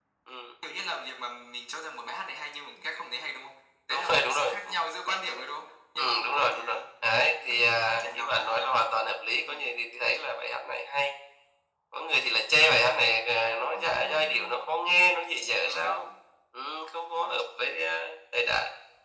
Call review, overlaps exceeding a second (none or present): present